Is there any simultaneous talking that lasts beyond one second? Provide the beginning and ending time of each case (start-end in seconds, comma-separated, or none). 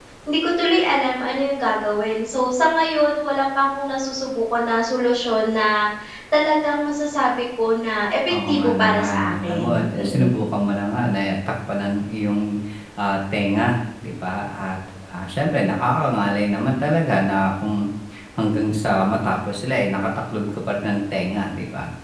8.5-10.3